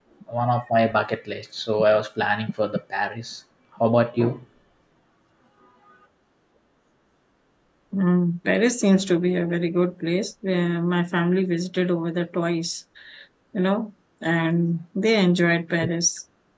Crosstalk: none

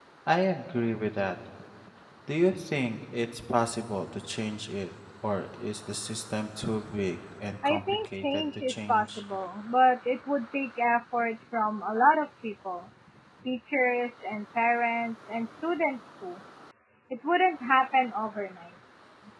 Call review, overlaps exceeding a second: present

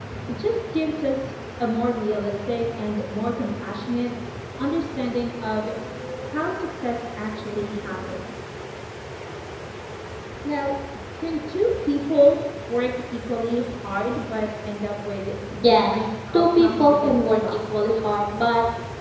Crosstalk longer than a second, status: present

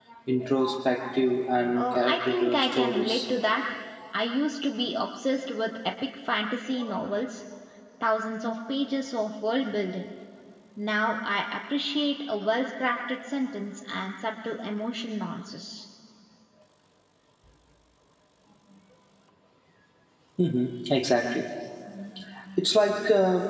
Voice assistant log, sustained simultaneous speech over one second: present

